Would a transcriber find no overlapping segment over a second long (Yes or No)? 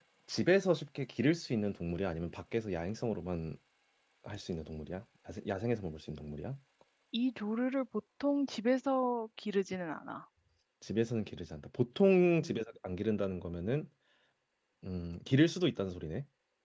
Yes